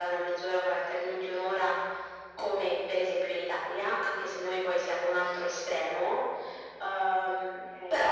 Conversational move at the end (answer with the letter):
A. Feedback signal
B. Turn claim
B